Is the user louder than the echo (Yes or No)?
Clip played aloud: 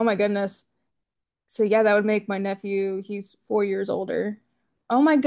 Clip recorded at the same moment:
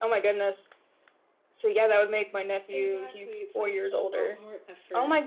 No